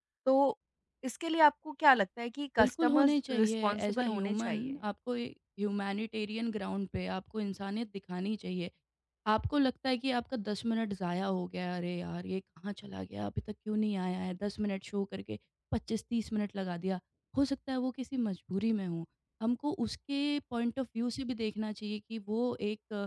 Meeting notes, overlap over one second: present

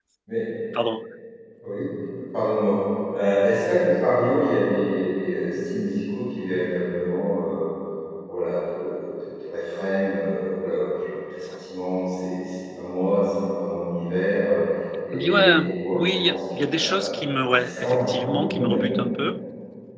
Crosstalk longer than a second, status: present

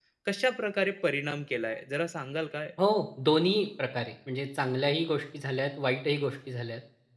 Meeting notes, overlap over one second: none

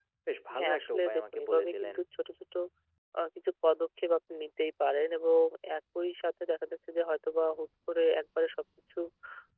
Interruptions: present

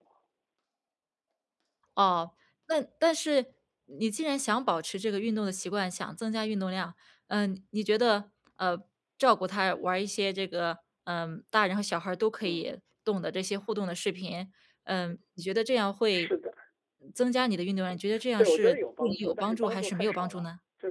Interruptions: present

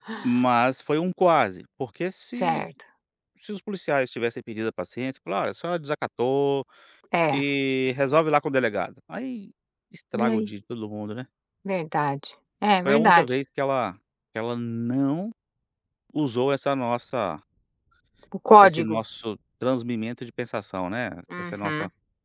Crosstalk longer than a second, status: none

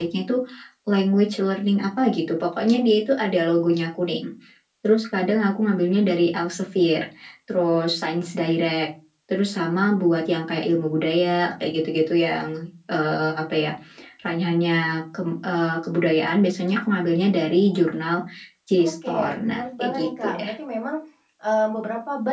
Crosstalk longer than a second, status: present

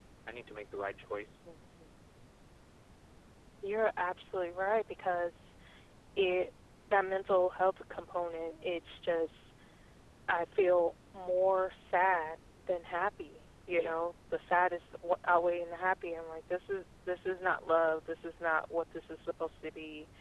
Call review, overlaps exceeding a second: none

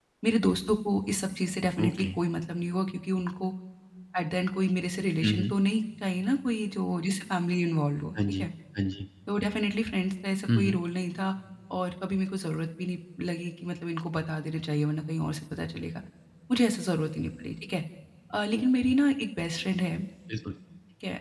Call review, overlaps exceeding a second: none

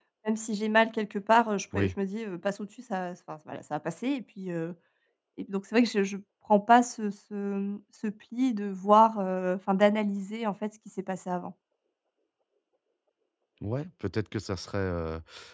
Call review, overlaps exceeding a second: none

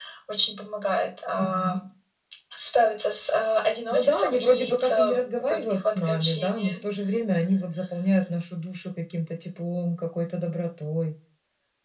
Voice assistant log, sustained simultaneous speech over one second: present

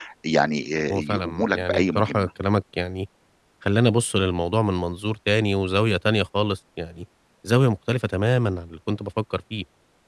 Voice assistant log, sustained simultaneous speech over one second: present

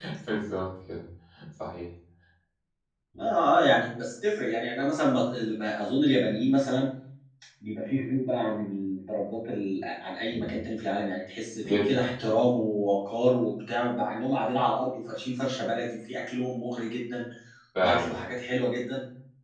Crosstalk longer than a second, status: none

